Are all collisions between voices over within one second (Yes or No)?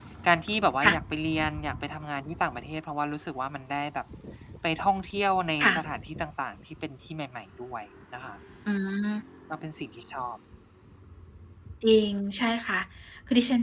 Yes